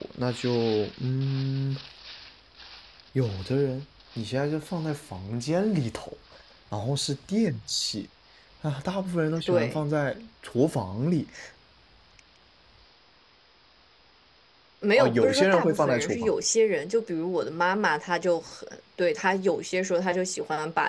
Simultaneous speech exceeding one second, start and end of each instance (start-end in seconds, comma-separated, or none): 15.0-16.3